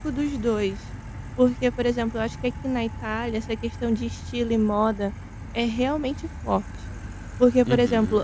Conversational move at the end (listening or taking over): listening